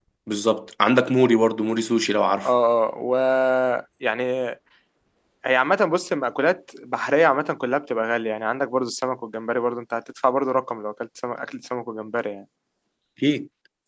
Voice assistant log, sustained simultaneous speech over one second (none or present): none